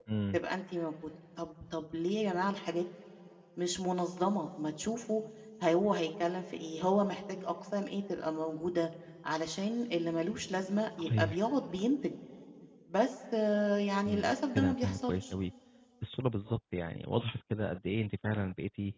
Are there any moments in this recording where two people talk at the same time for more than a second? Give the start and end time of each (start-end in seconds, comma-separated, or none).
14.1-15.3